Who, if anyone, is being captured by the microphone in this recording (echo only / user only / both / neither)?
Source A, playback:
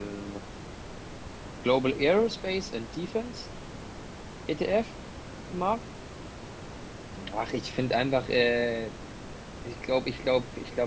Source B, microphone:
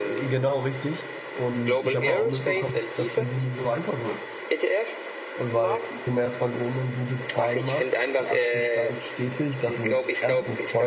both